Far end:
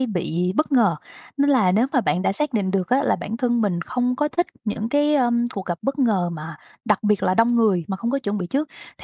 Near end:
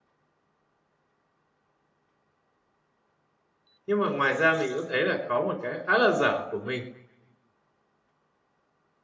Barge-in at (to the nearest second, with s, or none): 4 s